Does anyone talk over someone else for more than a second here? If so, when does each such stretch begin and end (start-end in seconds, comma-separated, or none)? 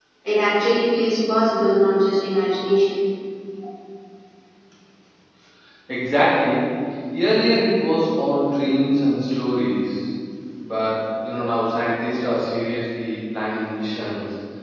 none